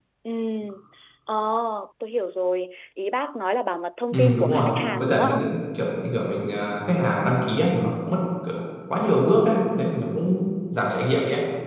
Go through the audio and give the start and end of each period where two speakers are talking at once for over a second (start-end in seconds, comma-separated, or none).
4.1-5.4